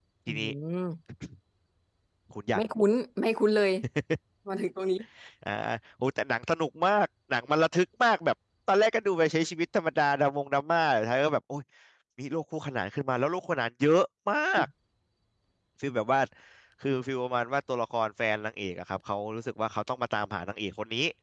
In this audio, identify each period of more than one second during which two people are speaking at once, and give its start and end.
none

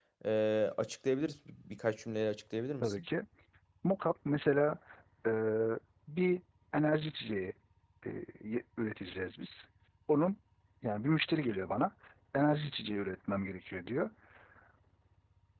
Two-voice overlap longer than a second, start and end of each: none

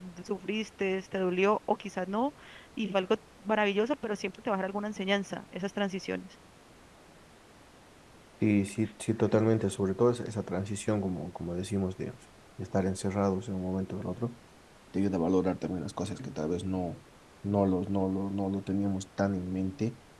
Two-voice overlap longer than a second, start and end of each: none

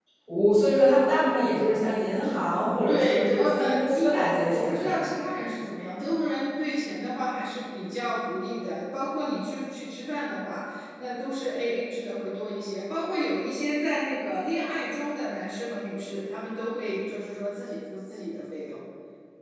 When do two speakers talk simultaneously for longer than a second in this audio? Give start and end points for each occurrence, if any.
2.9-5.1

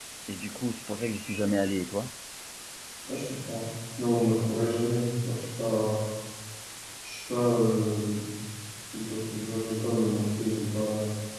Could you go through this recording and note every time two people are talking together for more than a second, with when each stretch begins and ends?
none

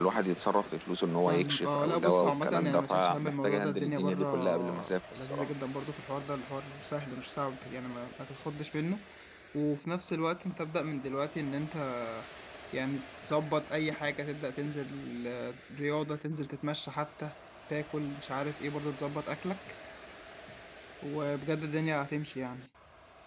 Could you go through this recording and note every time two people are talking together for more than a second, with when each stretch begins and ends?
1.3-5.5

